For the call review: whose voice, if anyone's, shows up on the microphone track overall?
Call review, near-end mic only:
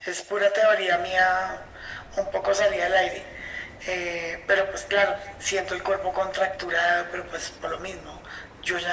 echo only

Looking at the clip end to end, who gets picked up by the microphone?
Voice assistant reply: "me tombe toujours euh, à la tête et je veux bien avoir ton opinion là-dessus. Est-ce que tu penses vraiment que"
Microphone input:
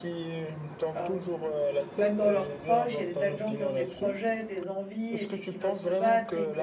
both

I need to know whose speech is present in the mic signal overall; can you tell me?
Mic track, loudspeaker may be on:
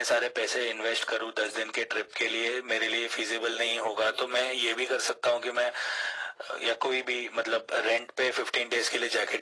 echo only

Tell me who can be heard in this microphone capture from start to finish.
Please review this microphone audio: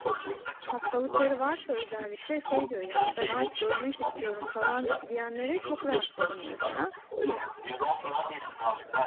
both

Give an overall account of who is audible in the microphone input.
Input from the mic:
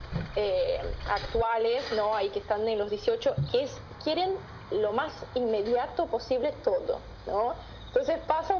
echo only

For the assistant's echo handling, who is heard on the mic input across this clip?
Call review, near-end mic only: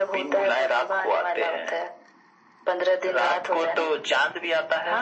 echo only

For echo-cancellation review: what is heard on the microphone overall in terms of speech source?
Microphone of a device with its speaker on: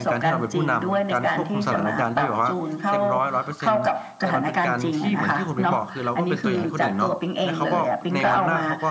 both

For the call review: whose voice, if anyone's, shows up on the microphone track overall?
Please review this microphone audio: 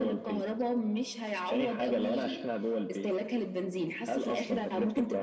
echo only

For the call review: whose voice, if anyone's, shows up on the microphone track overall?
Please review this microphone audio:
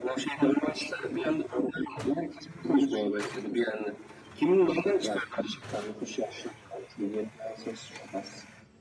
echo only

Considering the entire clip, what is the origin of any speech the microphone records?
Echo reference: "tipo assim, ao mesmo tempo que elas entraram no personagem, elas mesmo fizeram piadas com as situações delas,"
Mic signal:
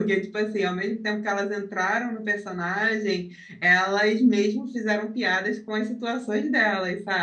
echo only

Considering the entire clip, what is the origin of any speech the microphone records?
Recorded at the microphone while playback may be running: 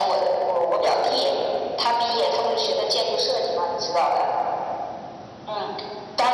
echo only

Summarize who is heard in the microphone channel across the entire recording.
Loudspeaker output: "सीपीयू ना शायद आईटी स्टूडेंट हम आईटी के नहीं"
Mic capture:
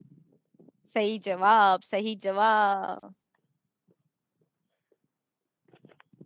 user only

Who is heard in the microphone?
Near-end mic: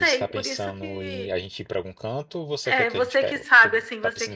both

